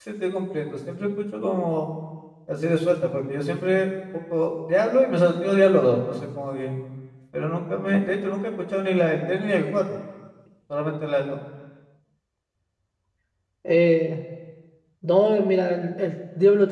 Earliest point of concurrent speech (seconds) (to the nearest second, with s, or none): none